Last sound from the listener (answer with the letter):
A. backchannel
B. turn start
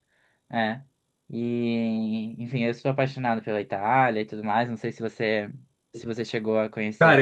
B